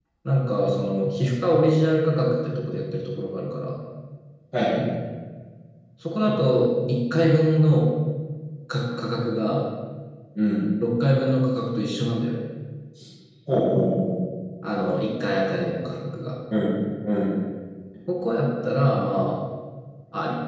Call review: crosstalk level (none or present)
none